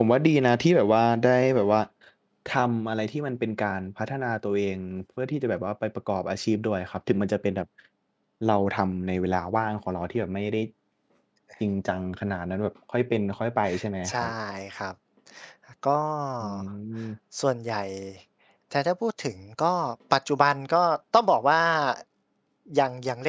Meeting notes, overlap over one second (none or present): none